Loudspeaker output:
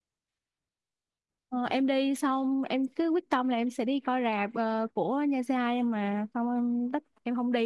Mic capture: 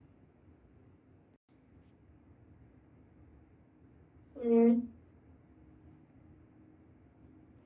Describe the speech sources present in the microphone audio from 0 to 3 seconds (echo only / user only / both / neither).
neither